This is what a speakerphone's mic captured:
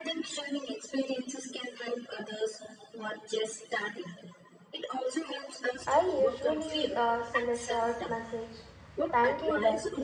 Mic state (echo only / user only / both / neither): both